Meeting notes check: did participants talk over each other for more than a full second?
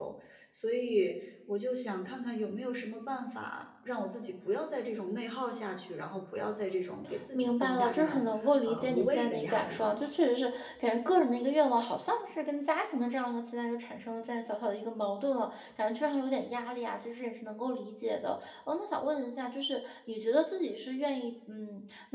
Yes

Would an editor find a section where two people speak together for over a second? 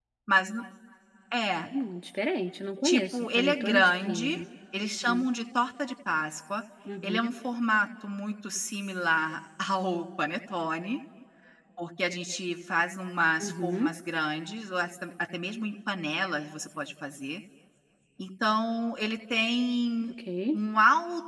Yes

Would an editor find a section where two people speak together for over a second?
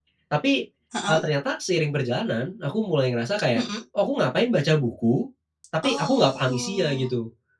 Yes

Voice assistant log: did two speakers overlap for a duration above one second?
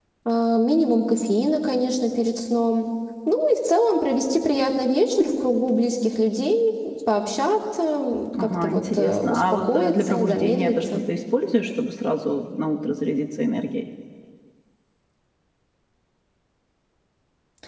Yes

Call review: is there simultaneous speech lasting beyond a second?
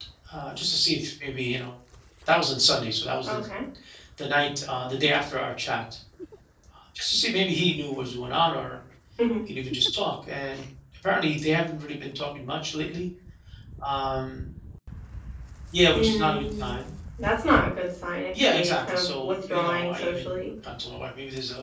Yes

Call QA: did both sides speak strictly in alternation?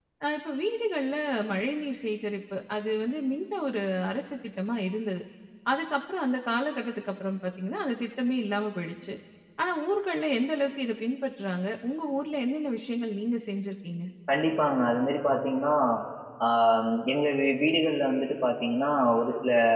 Yes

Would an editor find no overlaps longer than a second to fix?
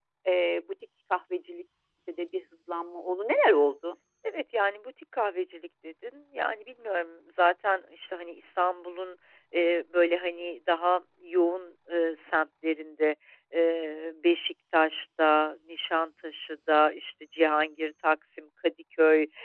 Yes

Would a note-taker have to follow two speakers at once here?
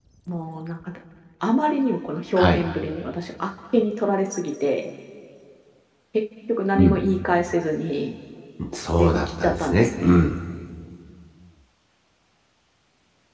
Yes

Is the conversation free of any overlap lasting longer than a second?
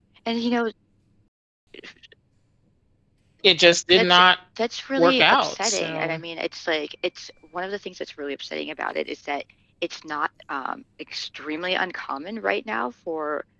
No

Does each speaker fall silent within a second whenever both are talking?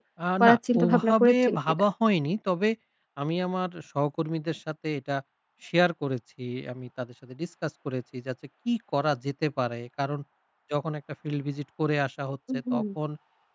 No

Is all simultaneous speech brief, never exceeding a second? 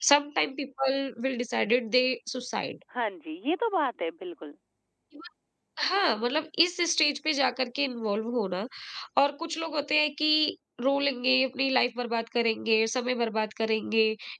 Yes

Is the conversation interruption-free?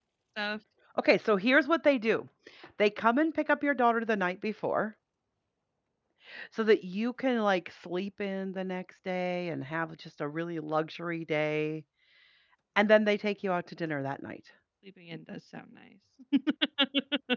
Yes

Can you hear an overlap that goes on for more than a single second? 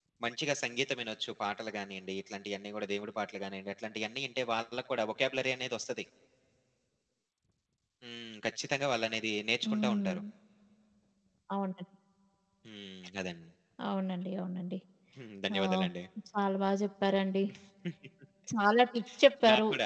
No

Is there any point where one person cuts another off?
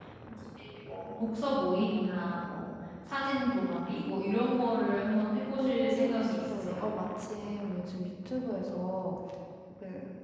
Yes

